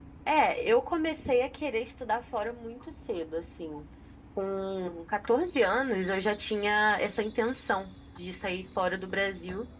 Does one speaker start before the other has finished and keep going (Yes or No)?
No